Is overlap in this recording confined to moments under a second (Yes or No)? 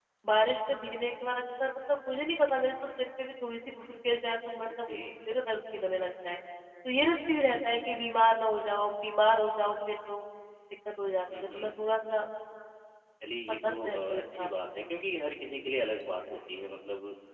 No